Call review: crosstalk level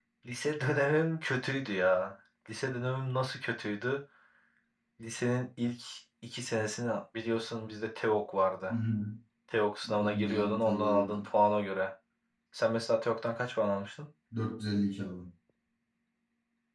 present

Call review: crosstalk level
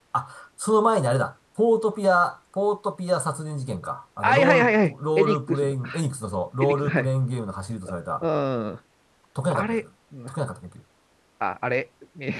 present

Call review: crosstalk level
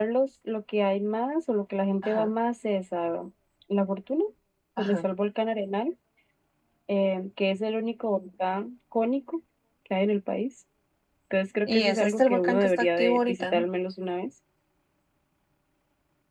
present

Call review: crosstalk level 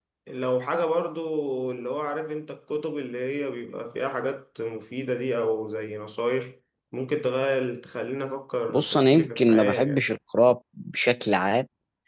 present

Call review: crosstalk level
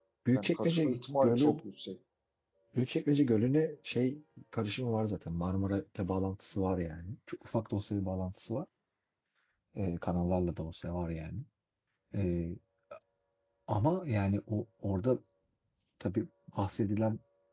present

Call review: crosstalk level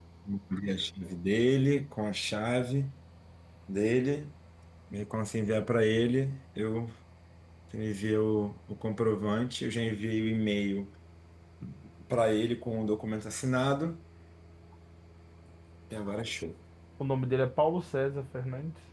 none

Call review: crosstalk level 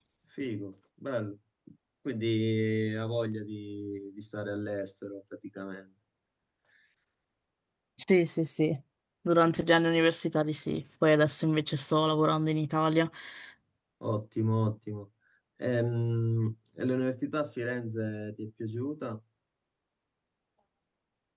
none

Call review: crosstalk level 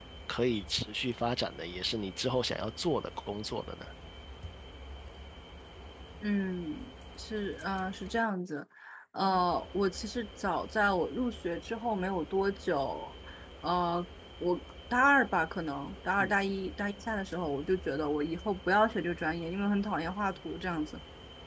none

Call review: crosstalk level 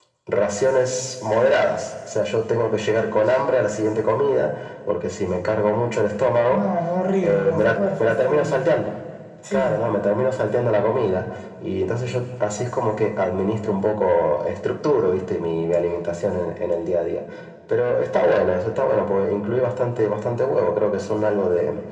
present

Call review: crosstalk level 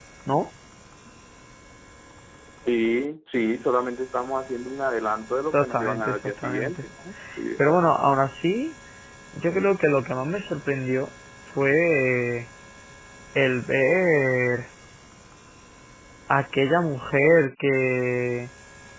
present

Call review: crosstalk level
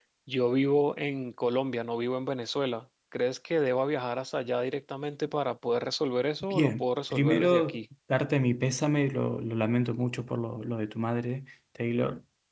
present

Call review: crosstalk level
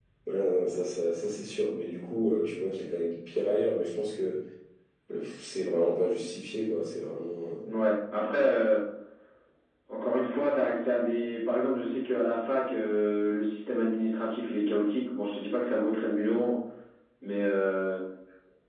none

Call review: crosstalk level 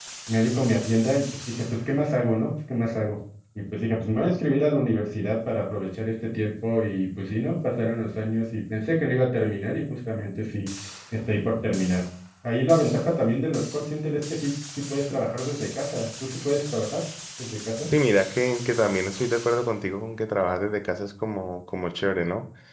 none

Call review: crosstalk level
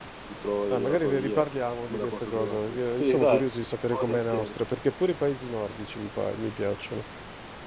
present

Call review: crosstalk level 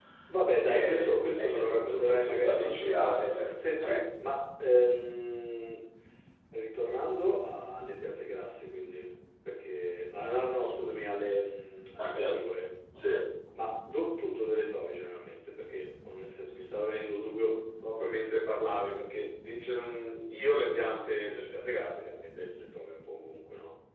present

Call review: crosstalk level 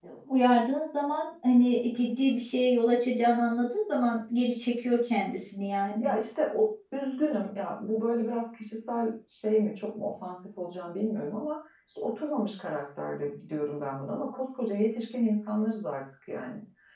none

